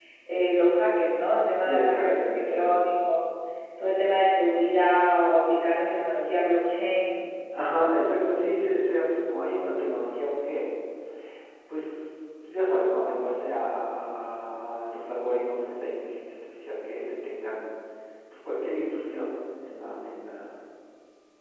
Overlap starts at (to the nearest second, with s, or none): 2 s